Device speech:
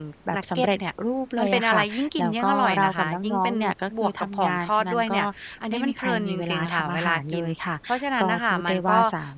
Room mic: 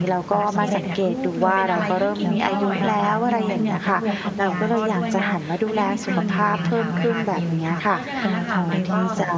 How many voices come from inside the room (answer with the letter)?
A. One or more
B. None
A